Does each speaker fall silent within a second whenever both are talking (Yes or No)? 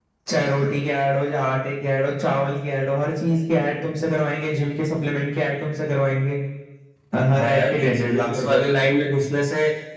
No